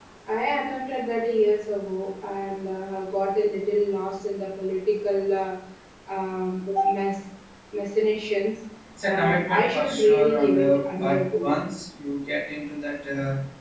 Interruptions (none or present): present